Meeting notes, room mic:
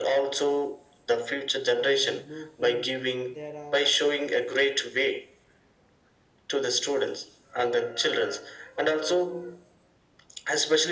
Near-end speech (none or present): present